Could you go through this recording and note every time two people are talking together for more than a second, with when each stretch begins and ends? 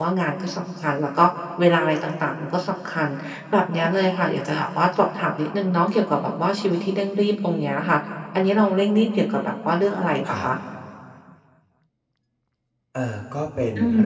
none

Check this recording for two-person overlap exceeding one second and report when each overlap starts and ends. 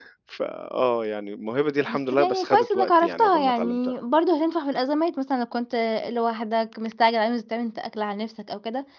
1.9-3.8

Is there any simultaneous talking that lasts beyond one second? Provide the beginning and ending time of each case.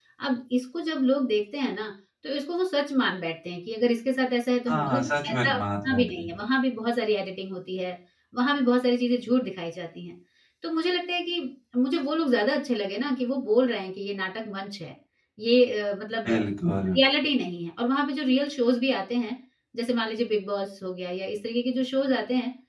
4.7-6.3

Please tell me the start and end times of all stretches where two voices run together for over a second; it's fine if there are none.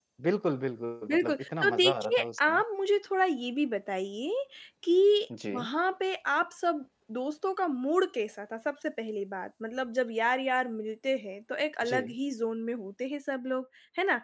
1.1-2.6

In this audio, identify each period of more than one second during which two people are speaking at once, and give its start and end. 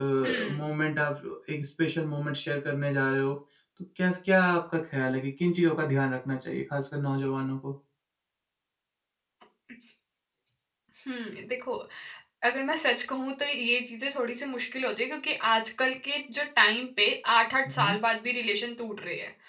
none

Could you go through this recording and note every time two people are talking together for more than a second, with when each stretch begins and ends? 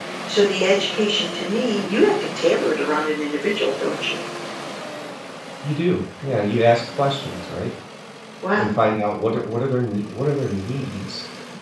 none

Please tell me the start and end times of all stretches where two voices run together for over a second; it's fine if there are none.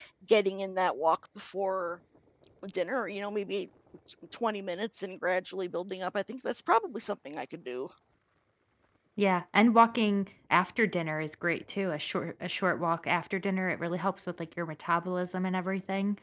none

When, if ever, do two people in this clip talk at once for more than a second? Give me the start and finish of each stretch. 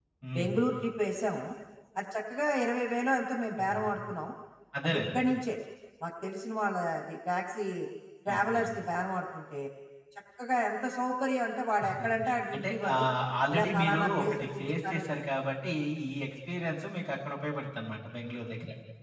13.5-15.0

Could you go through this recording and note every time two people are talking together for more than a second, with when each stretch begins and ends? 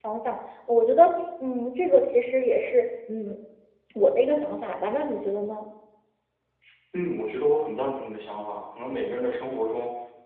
none

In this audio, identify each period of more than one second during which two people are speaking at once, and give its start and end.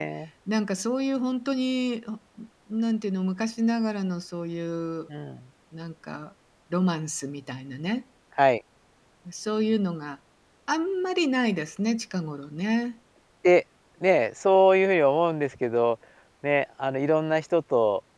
none

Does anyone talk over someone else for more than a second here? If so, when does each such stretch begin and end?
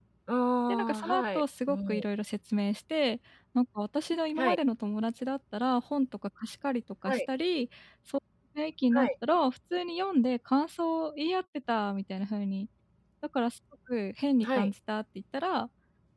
0.7-2.0

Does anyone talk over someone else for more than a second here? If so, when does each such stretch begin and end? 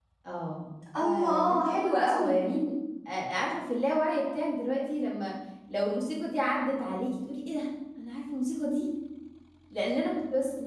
1.0-2.4

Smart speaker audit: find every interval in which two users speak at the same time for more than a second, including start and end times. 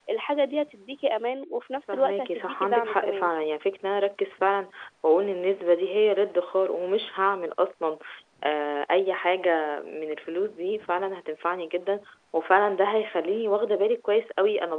1.9-3.3

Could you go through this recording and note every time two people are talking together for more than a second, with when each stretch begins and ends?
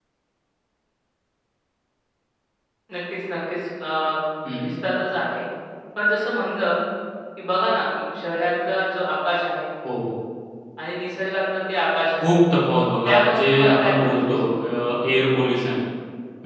13.0-14.6

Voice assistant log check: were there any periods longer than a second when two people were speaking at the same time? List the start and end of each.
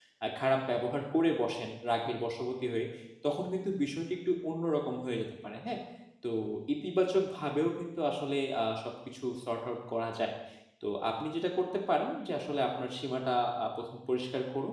none

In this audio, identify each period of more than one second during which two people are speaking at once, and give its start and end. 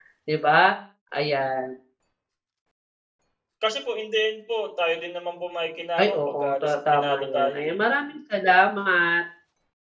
6.0-7.8

